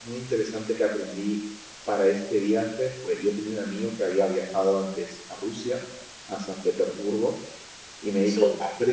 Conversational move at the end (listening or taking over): listening